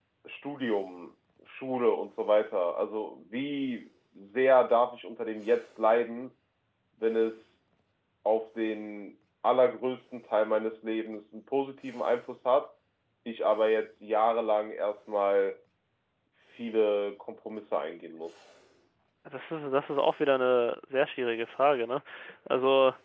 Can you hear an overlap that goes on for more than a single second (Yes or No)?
No